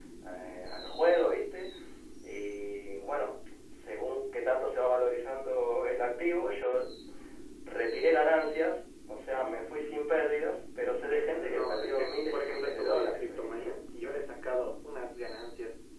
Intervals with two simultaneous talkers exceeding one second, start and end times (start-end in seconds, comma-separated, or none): 11.1-13.8